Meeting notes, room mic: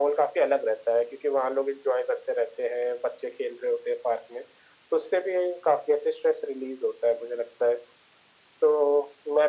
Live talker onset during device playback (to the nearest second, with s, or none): none